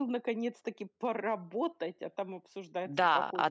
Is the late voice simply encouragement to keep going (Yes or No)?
No